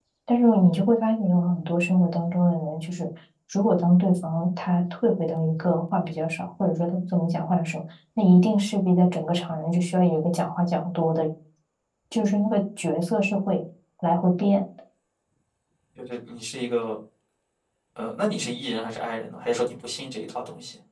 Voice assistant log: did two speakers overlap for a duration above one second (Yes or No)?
No